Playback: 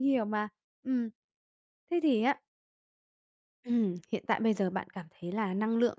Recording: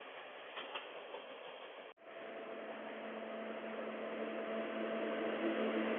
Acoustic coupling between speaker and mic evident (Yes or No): No